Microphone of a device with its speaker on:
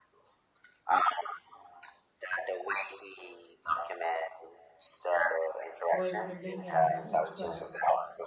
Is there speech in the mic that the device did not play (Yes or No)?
Yes